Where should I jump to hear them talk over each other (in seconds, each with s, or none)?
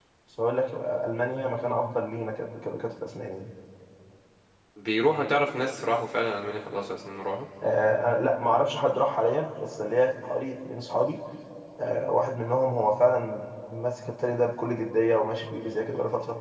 none